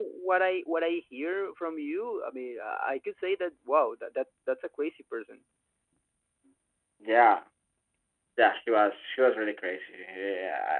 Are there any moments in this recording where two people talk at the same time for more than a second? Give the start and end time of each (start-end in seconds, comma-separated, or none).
none